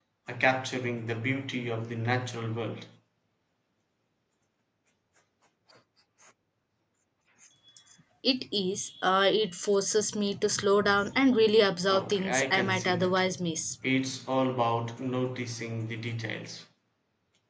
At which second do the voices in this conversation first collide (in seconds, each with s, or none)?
11.8 s